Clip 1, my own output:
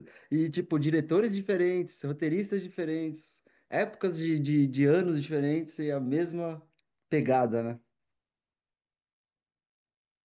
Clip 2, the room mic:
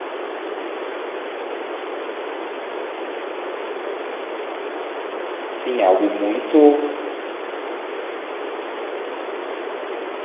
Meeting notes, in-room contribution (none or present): present